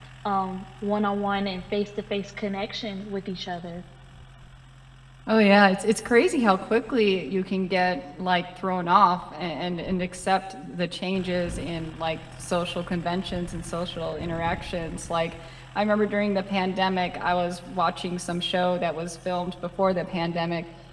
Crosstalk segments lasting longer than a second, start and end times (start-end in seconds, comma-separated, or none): none